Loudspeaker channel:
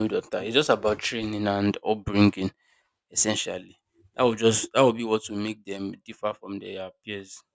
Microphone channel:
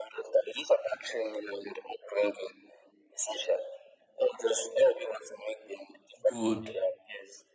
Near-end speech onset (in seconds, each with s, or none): 6.2 s